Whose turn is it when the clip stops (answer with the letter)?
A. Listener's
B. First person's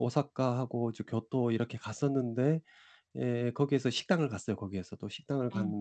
B